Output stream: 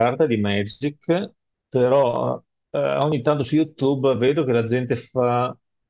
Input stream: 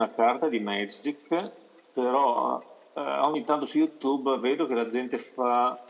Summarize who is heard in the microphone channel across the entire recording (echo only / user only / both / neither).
echo only